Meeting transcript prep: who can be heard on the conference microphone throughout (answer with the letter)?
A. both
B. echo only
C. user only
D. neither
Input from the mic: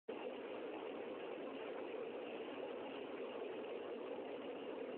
D